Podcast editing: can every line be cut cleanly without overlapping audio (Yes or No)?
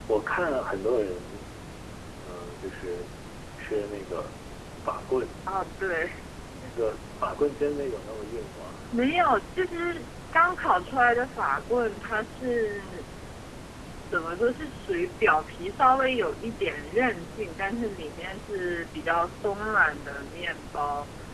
Yes